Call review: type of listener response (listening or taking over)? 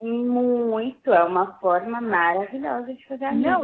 taking over